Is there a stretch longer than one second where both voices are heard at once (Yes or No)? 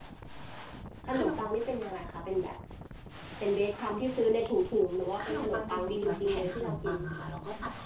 Yes